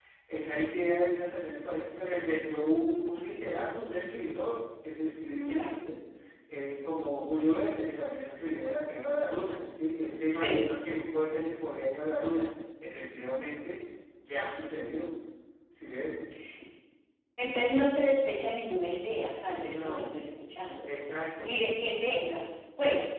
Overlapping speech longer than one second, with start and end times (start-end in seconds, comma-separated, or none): none